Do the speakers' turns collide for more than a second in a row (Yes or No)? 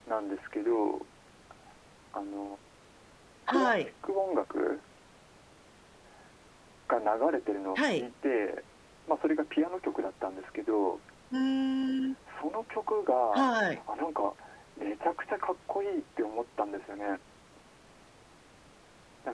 No